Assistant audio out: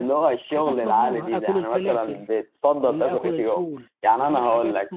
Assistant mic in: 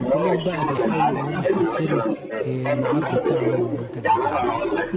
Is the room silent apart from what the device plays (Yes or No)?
No